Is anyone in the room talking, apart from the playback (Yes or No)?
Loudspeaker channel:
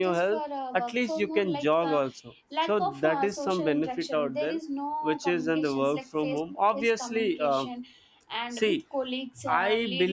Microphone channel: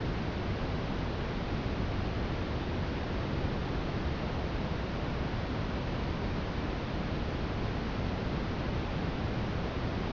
No